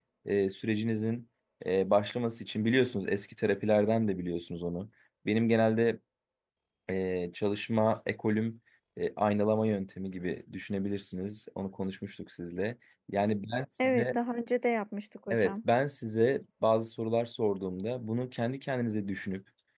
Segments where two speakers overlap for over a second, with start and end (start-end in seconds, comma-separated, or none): none